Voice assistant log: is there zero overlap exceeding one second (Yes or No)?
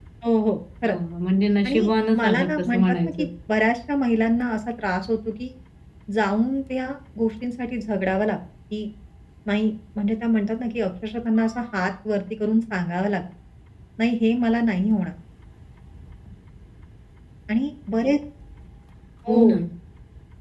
No